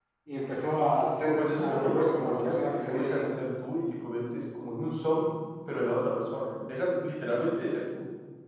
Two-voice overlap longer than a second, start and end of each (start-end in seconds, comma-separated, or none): 1.2-3.3